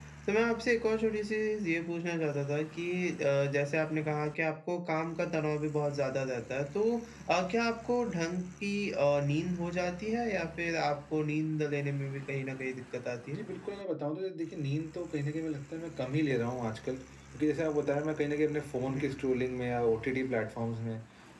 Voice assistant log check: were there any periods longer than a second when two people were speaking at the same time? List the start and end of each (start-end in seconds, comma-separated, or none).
none